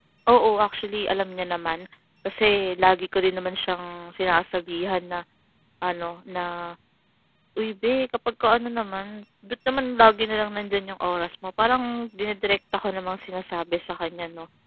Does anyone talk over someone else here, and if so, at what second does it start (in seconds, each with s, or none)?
none